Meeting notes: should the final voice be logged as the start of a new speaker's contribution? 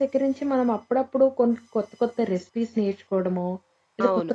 No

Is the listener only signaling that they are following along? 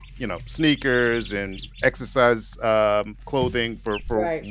Yes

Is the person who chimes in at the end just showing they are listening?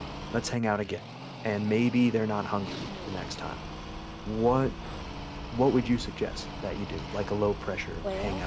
No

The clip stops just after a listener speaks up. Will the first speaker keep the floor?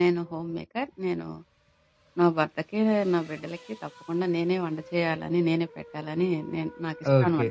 No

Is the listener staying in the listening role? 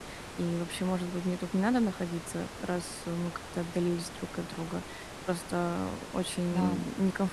Yes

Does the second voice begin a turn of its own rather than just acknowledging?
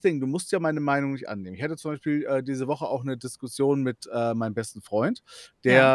No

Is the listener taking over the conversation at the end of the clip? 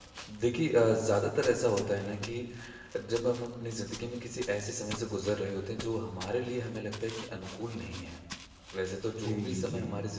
No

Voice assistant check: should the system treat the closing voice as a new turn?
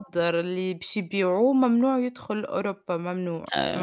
Yes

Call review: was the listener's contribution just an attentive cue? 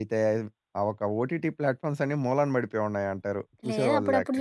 No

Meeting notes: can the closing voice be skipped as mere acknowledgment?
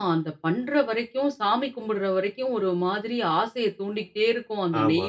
Yes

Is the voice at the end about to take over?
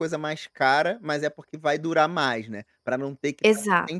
No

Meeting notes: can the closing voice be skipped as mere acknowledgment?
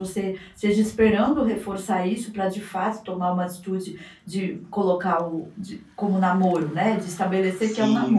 No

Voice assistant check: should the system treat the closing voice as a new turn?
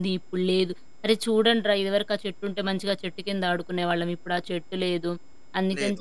No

